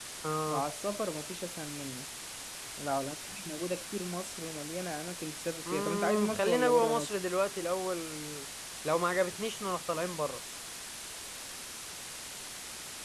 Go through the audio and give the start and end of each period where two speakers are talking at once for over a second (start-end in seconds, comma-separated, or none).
5.7-7.1